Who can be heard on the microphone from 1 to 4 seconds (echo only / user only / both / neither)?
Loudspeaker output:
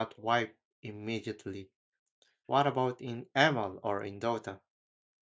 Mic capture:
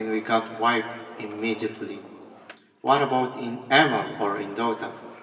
echo only